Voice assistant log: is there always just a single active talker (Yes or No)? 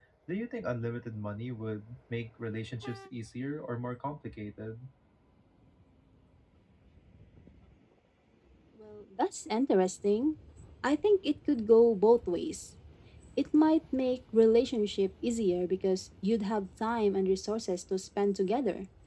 Yes